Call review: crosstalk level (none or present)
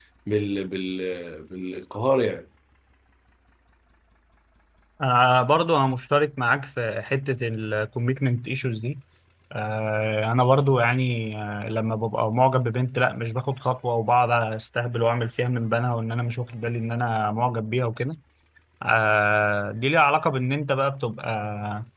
none